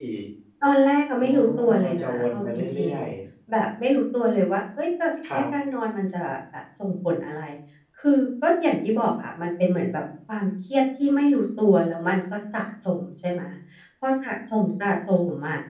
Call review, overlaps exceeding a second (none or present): present